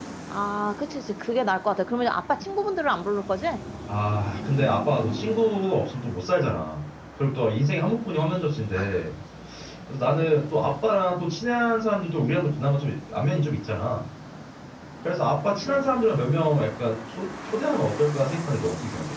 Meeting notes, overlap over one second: none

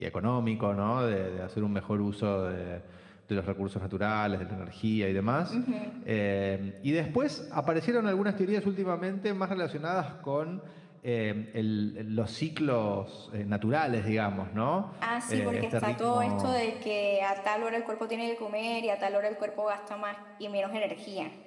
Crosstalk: present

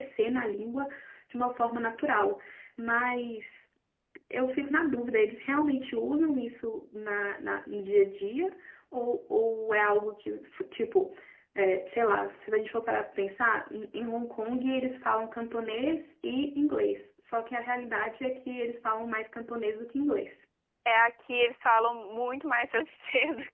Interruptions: none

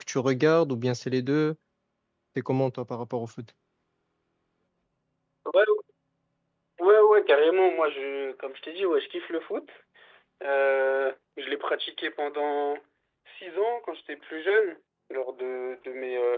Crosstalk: none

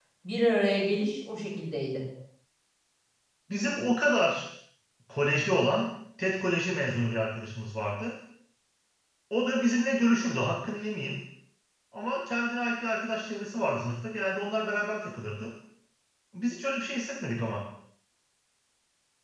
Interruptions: none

